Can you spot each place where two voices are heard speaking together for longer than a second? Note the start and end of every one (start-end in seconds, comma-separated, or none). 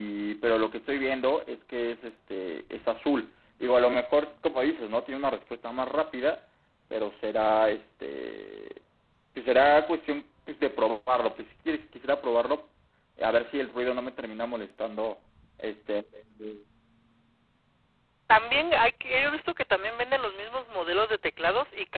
none